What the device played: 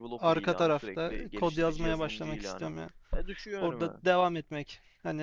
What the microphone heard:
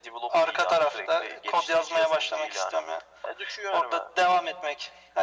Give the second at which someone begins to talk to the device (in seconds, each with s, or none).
none